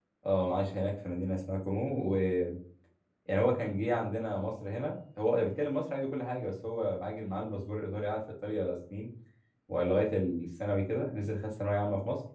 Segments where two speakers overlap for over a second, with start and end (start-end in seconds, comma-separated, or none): none